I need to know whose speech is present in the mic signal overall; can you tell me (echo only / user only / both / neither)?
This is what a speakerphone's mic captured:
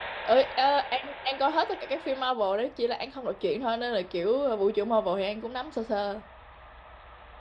user only